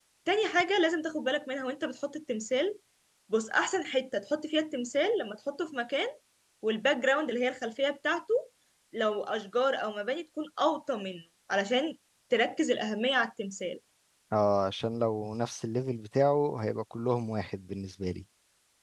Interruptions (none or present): none